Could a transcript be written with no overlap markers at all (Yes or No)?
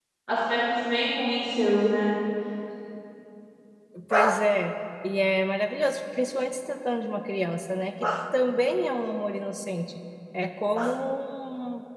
Yes